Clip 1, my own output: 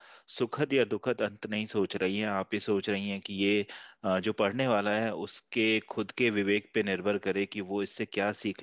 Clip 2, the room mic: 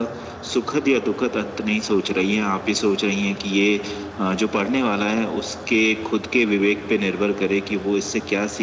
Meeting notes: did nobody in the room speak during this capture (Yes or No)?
Yes